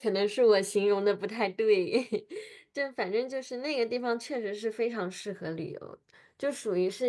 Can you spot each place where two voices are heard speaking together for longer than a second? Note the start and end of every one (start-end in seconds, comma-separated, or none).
none